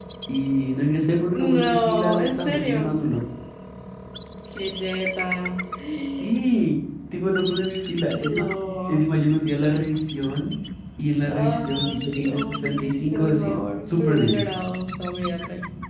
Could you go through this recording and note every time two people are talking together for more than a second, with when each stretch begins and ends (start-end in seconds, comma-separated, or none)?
1.3-3.0, 11.3-14.4